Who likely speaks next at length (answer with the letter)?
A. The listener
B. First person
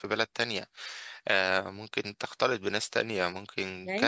A